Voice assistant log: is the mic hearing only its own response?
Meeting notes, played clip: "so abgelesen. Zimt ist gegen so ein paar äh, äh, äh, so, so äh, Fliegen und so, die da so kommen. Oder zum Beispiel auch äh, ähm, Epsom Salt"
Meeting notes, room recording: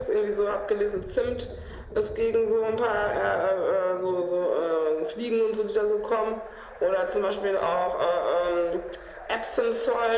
Yes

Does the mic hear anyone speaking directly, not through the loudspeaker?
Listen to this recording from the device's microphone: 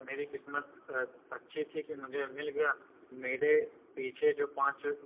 No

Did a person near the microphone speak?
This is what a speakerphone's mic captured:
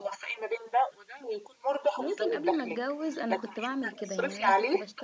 Yes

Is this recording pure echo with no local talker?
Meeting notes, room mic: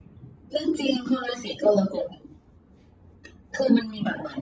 Yes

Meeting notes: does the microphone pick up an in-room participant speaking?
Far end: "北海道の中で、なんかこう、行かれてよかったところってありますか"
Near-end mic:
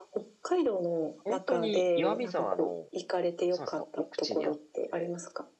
Yes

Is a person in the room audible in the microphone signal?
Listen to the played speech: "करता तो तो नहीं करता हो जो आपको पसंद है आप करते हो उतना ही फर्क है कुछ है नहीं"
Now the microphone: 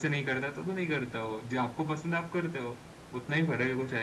No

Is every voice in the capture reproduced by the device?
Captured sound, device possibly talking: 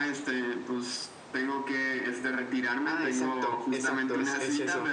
No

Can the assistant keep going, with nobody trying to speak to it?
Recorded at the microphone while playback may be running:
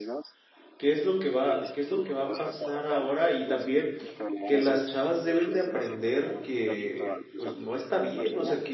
No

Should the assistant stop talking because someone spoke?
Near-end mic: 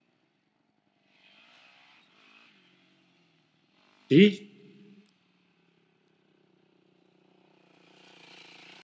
Yes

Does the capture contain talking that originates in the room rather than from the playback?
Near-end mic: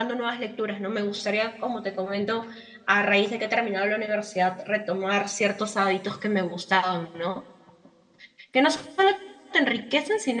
Yes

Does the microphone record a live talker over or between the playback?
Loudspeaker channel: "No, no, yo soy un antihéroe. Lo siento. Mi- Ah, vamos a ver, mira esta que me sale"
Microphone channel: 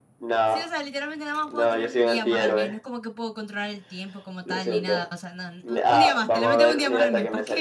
Yes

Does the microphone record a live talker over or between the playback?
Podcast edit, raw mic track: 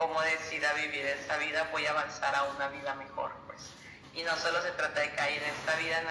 No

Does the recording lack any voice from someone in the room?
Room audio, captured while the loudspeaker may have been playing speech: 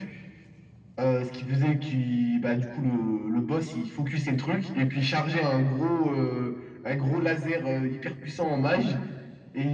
Yes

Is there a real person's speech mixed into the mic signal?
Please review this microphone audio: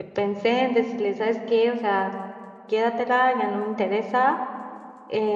Yes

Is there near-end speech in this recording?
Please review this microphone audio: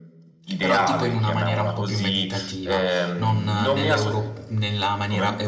Yes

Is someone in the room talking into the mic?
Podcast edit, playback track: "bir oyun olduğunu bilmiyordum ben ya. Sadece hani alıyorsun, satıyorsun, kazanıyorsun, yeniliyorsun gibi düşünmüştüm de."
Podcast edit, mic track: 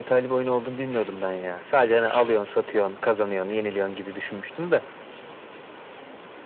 No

